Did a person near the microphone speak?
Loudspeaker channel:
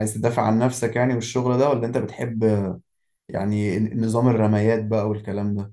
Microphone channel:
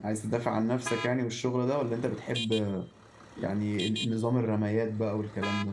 No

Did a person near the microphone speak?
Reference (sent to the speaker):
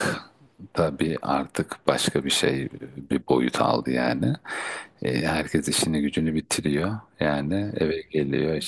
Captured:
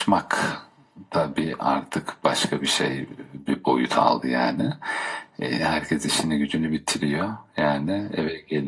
No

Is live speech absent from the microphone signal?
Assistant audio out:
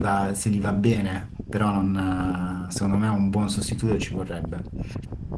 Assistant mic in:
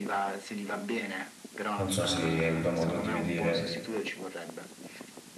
No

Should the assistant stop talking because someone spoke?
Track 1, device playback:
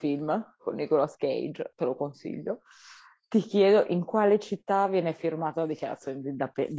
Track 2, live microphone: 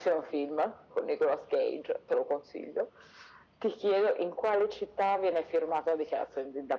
No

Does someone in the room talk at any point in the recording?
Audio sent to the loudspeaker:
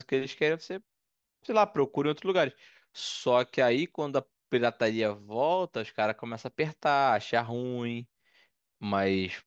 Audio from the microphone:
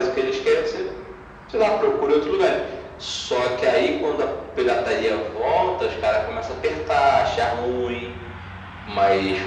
No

